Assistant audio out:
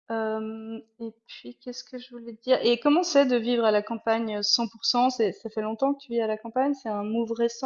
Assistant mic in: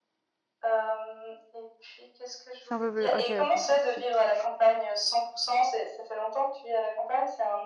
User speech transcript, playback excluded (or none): C'est un peu plus OK, bon, zut.